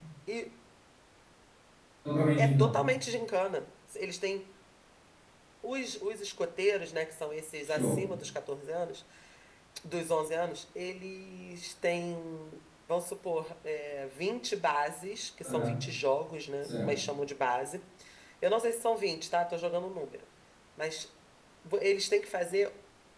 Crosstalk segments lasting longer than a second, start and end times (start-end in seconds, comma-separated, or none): none